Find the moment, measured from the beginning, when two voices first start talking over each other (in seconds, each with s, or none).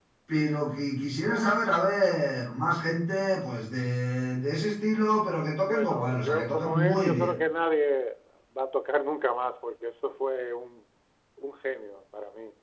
5.7 s